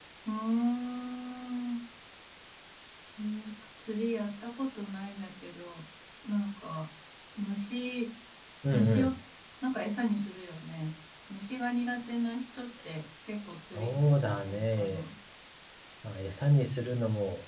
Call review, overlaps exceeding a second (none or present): present